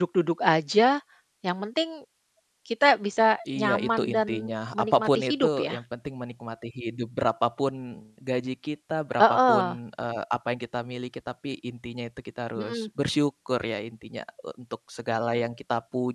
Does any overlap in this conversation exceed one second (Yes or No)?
Yes